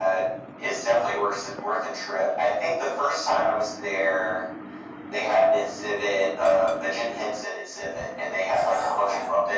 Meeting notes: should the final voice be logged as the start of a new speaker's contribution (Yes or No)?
No